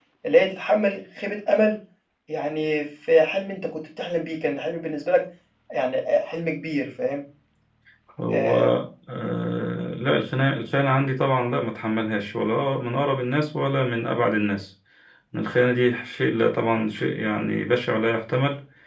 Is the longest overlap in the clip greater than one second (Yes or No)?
No